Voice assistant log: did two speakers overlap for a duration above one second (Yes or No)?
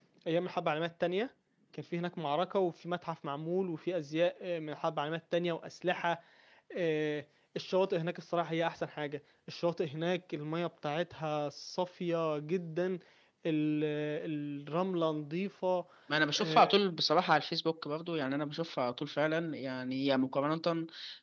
No